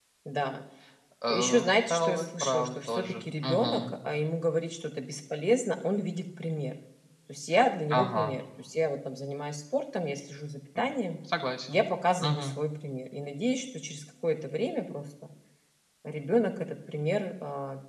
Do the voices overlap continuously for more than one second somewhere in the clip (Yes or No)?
Yes